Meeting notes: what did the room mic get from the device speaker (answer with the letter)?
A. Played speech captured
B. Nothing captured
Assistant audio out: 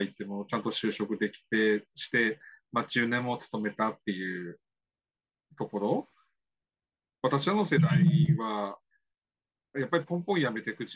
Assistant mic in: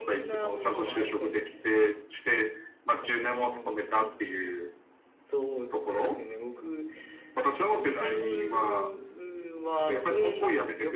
A